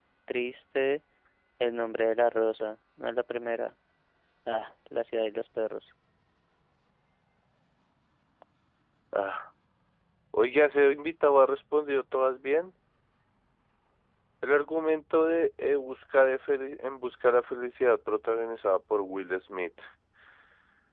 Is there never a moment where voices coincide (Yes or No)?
Yes